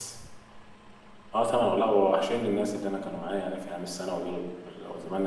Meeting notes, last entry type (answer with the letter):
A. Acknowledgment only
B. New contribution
A